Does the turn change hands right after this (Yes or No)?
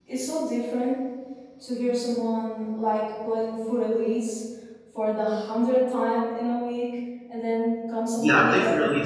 Yes